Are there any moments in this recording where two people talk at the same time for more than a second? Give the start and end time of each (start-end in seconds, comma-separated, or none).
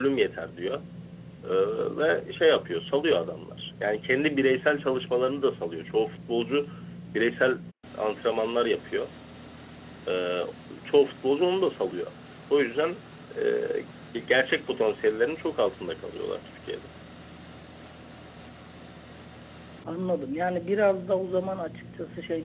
none